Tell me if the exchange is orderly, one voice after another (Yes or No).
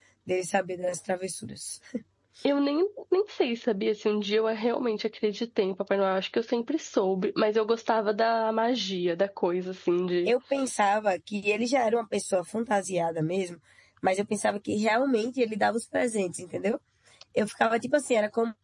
Yes